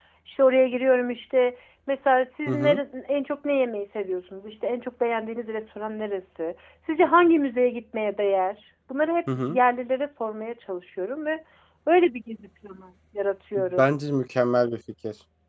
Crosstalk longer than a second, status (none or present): none